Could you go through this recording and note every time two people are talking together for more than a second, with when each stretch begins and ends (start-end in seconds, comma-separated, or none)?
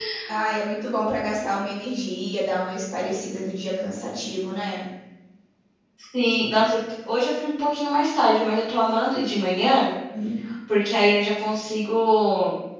none